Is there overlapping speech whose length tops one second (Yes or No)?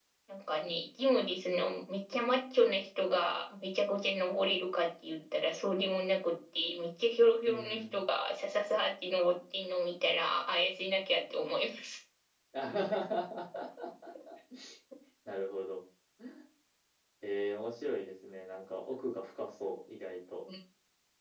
No